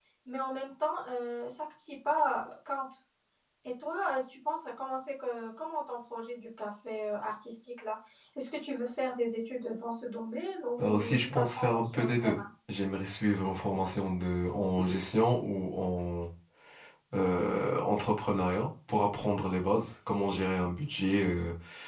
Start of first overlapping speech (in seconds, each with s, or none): 10.8 s